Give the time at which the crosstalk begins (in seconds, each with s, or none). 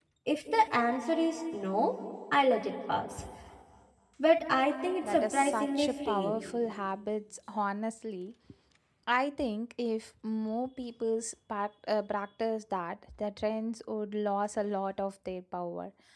5.0 s